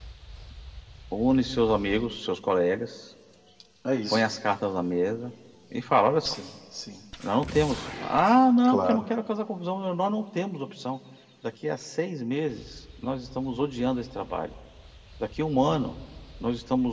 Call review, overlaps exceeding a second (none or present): none